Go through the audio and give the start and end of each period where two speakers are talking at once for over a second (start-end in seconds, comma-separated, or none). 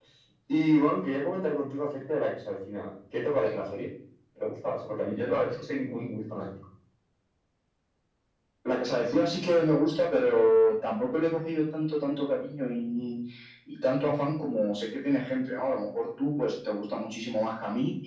none